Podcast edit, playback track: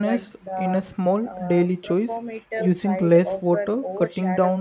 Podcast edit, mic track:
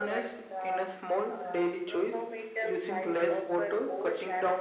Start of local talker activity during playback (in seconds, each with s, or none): none